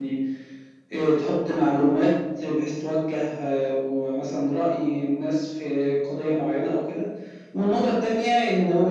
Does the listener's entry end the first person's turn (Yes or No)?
No